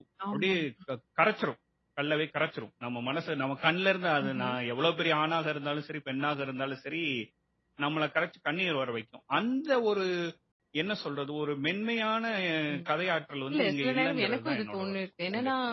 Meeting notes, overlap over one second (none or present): present